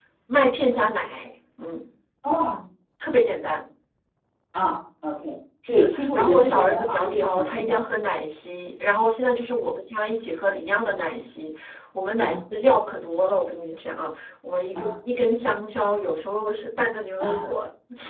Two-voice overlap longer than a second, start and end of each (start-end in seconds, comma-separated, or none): 5.7-7.8